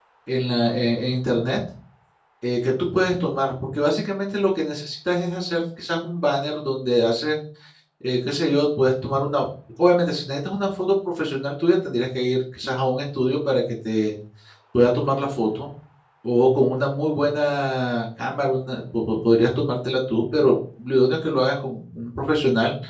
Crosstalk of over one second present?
No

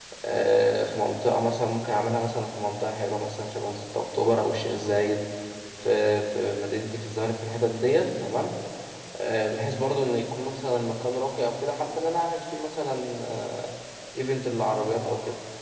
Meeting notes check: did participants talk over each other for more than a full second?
No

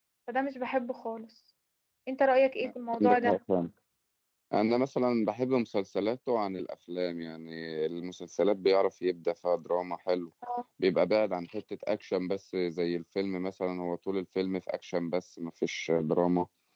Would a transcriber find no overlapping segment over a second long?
Yes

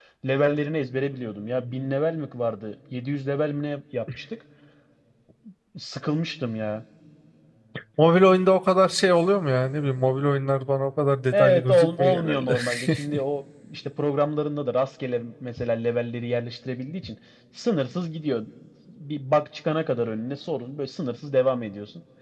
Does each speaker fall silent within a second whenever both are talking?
No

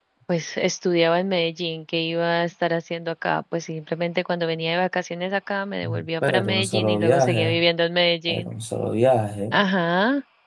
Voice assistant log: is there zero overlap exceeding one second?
No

